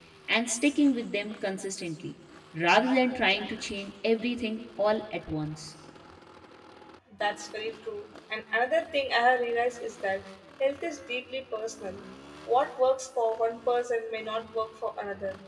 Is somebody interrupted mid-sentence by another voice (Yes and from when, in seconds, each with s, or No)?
No